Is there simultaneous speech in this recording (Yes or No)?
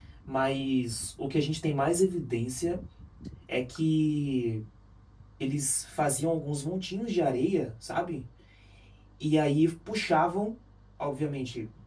No